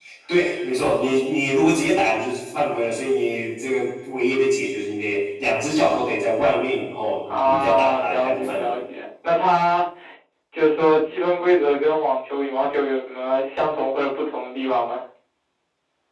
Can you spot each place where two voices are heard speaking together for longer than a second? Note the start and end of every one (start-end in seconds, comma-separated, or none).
7.3-8.8